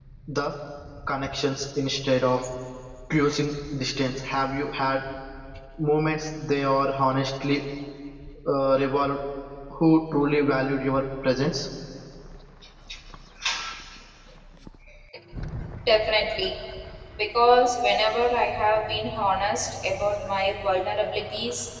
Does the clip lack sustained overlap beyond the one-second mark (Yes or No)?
Yes